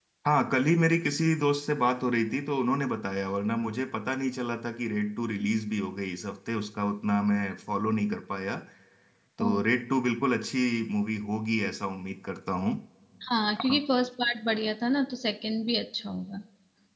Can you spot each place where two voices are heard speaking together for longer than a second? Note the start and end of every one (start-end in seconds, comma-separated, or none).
none